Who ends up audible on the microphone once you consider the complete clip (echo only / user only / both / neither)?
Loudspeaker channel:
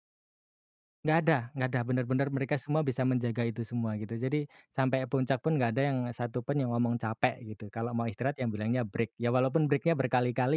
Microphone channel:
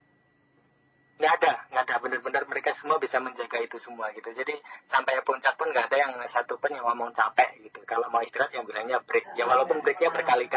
both